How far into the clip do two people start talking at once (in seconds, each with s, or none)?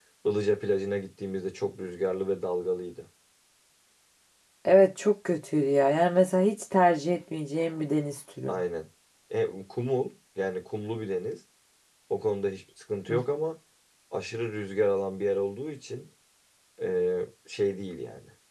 none